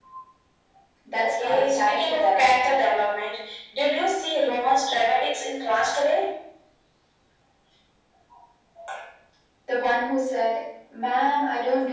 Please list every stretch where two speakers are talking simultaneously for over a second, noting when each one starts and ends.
1.2-3.0

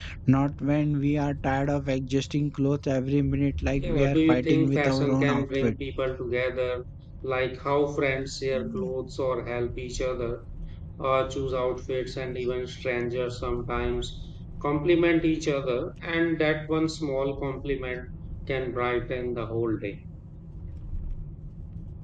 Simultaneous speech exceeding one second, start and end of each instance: 3.7-5.8

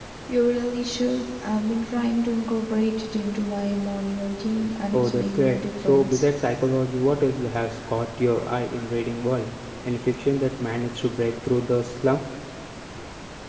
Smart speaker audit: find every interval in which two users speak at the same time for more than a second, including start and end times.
4.9-6.2

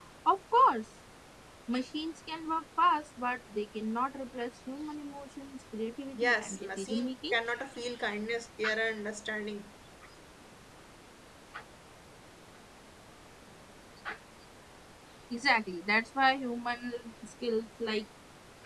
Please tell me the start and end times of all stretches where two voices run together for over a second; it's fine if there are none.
6.2-7.4

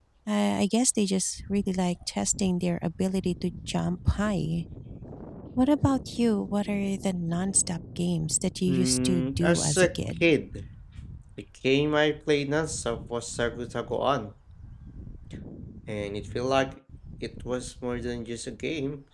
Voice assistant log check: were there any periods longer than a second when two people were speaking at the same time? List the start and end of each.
8.7-10.3

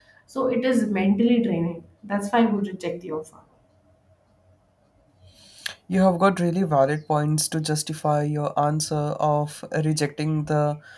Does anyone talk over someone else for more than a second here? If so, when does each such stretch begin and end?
none

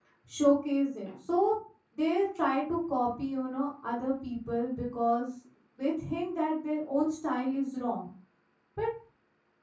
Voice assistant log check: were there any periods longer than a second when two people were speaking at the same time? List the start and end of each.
none

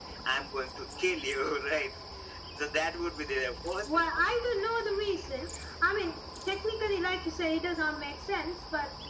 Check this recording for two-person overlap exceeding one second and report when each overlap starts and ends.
none

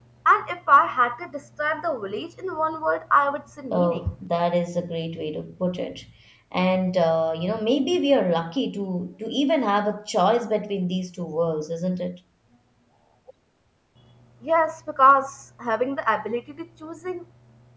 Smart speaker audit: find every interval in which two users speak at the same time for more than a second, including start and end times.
none

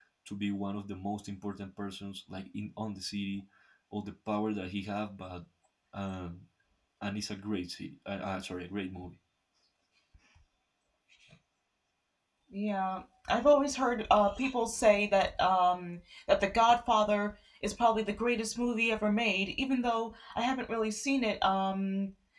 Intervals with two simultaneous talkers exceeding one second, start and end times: none

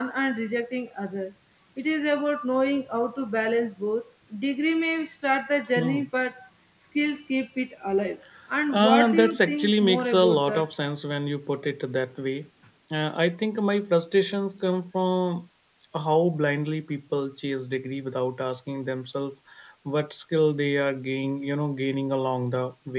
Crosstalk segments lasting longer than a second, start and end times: 8.7-10.7

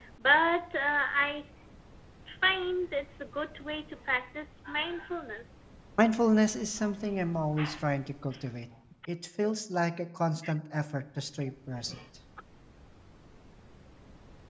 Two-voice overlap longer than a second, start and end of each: none

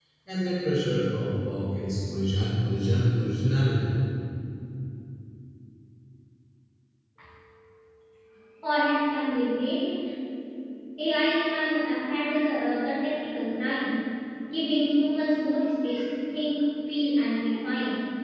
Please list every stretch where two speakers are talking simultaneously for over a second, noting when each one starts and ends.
none

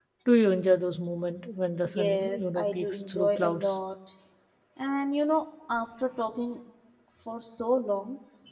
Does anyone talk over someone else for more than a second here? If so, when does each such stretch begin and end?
1.9-3.8

